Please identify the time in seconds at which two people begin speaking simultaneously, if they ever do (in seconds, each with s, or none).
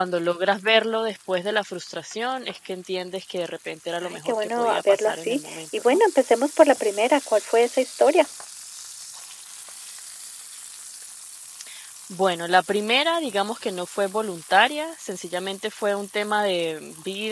4.0 s